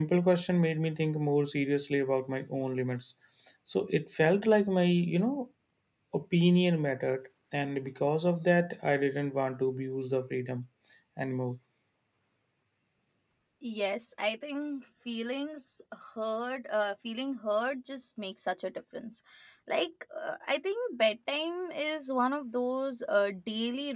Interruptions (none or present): none